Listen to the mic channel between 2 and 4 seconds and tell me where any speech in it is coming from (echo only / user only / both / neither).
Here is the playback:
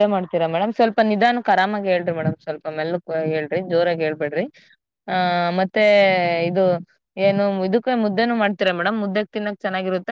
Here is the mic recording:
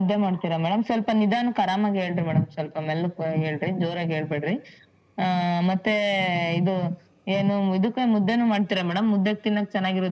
echo only